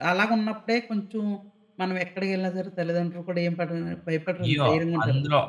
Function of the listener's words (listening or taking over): taking over